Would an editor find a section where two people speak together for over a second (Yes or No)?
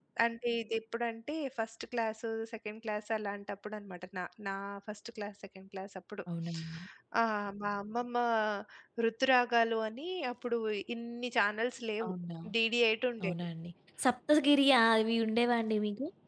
No